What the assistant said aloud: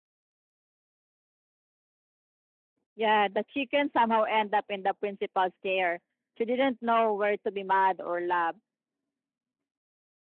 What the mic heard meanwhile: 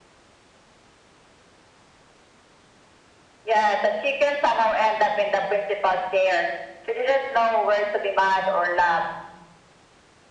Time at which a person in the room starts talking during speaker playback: none

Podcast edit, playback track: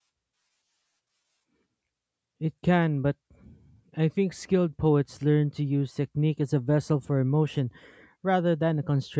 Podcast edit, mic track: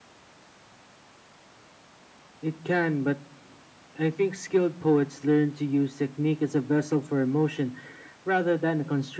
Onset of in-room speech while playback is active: none

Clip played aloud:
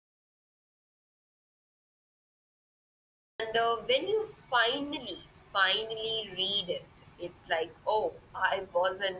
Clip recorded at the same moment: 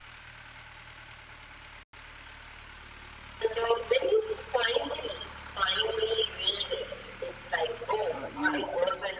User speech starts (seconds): 8.1 s

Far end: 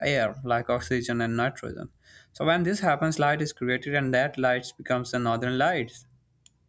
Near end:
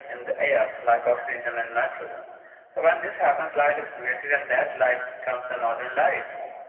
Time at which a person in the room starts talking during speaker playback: none

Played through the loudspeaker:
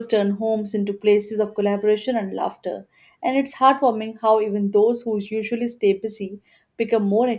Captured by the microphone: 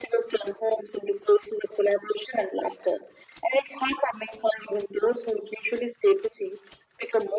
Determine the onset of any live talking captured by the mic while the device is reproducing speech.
none

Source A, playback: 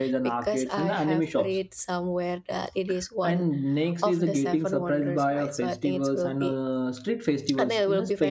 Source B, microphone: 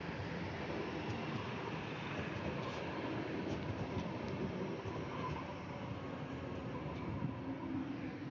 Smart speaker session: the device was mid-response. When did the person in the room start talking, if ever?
none

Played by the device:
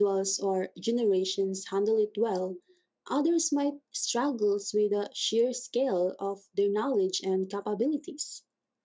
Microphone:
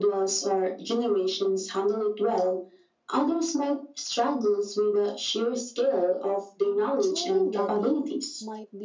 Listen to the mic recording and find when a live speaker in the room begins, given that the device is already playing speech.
6.6 s

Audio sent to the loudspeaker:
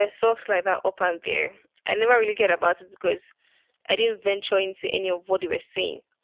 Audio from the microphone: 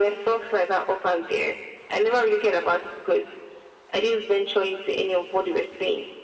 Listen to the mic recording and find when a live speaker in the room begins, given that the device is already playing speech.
none

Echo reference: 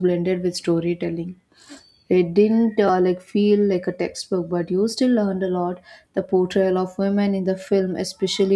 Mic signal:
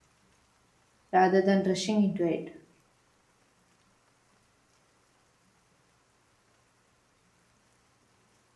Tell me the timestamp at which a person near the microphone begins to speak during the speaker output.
1.1 s

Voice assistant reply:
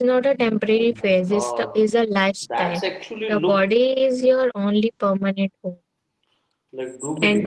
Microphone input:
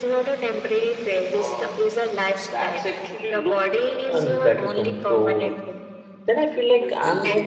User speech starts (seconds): 4.1 s

